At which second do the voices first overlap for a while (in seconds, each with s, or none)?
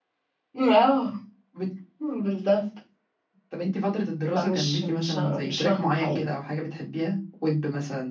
4.4 s